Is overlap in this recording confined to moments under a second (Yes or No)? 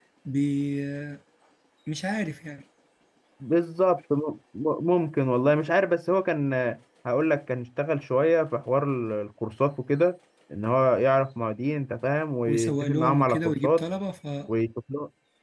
No